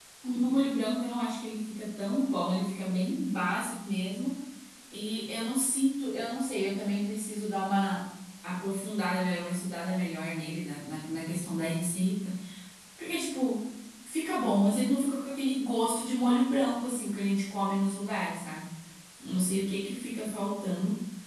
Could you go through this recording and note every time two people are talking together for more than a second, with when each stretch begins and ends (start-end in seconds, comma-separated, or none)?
none